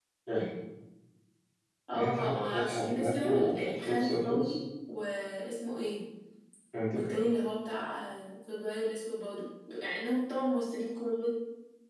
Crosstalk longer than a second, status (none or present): present